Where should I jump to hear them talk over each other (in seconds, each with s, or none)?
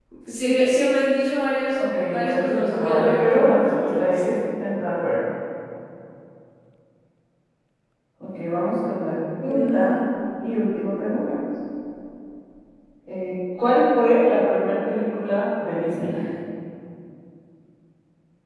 1.8 s